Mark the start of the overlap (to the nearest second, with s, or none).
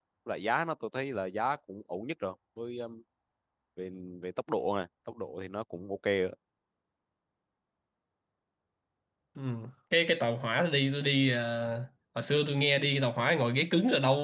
none